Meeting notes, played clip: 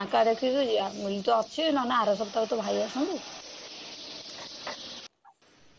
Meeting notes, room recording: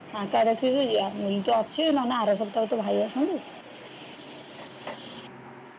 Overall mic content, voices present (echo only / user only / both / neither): echo only